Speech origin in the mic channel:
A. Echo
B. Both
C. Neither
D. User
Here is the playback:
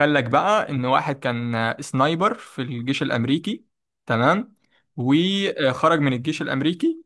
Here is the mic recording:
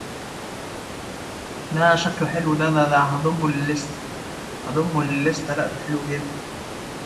D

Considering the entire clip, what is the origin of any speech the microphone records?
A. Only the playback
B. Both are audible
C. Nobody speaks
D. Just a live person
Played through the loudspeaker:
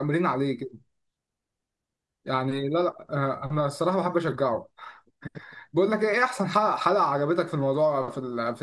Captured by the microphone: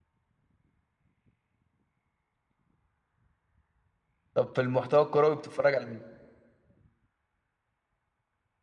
D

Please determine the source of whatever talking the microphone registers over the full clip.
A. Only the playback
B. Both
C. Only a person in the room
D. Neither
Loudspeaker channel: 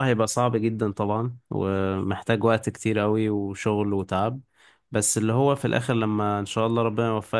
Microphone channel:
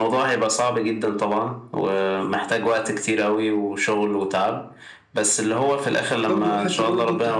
B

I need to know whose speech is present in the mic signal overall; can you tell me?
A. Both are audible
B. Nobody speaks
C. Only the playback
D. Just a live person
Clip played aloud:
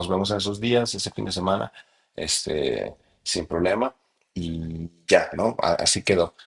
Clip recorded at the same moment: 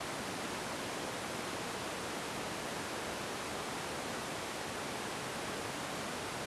B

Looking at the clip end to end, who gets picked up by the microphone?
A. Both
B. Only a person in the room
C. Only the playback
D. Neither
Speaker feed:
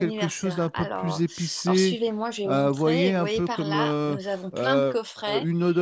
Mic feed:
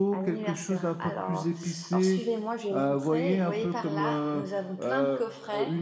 C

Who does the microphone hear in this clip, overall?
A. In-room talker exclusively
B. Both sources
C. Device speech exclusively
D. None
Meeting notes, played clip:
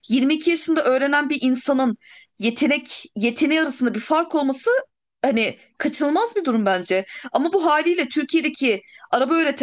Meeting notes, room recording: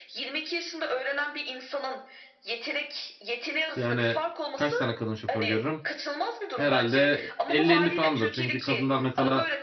B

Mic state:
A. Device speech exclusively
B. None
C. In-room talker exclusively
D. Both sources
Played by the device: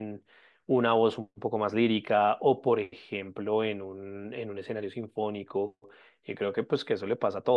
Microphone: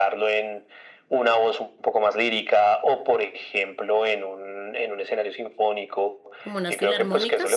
D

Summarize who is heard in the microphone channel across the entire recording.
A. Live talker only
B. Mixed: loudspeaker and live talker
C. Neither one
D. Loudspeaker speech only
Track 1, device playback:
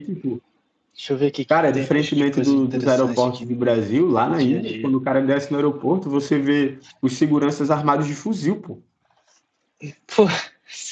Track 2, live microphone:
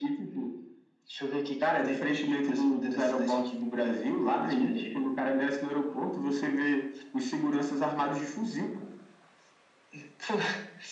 D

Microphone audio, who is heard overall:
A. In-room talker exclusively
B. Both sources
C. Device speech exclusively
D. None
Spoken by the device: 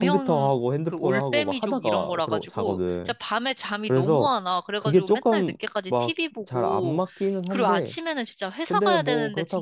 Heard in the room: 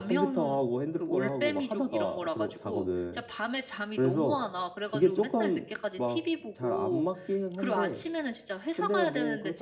C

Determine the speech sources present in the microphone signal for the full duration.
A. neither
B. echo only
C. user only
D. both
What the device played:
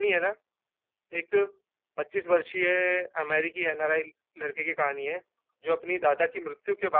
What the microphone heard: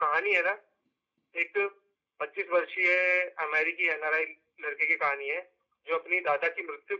B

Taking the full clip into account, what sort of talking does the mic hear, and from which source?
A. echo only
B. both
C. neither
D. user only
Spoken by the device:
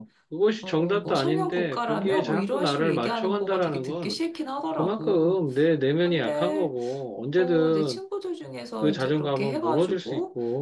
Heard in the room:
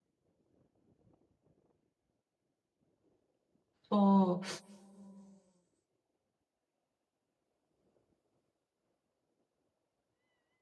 D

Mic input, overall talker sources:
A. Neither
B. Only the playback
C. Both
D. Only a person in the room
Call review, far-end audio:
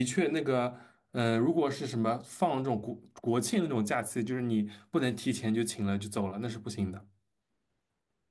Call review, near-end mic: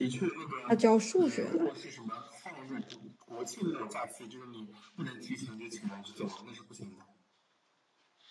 C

